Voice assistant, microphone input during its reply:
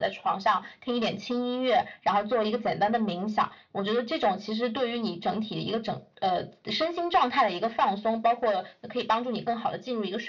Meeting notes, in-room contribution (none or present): none